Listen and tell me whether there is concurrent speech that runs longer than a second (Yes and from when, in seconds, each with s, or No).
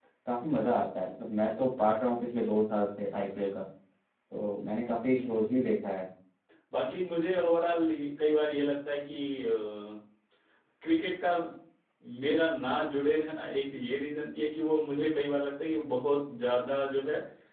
No